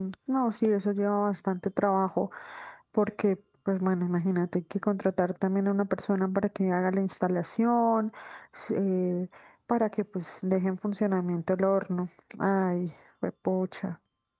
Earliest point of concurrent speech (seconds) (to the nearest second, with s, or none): none